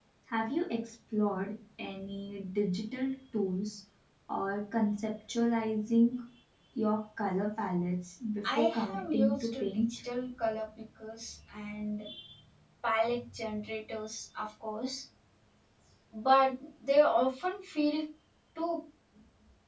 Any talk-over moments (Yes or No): Yes